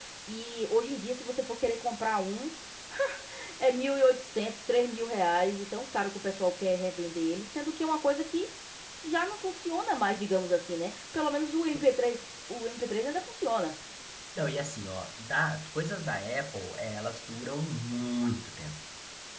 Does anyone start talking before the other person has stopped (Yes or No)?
No